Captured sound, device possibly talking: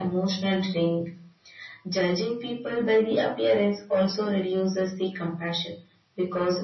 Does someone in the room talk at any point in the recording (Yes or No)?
No